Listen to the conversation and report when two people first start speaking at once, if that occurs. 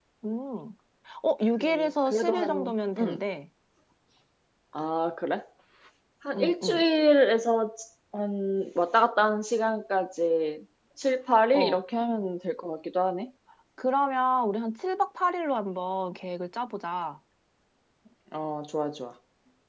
1.6 s

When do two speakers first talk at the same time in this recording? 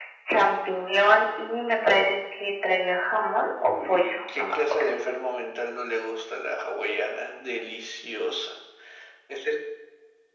3.6 s

